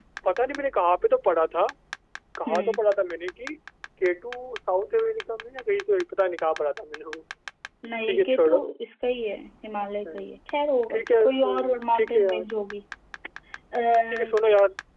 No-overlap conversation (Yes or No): No